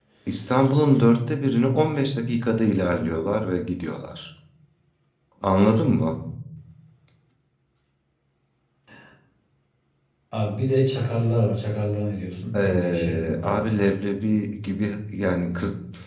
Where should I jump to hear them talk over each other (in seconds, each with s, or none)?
12.5 s